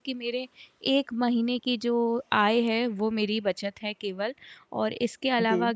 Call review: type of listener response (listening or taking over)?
listening